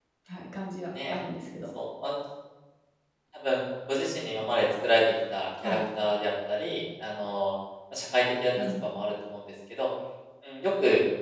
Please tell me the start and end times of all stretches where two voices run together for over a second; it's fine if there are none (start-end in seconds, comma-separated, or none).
none